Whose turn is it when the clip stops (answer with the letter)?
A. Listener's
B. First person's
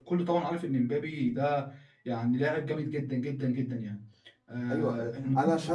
A